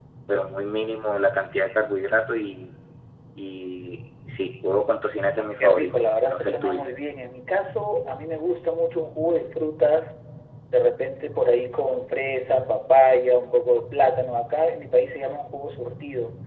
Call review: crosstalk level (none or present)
present